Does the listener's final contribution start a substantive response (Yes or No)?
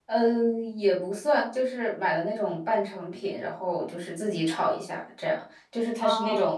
No